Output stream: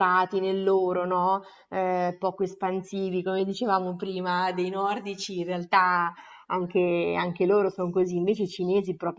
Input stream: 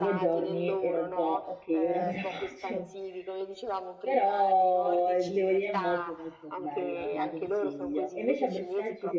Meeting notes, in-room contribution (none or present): present